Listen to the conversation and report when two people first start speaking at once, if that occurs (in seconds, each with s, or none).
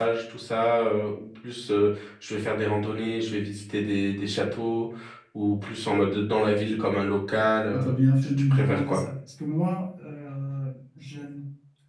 7.7 s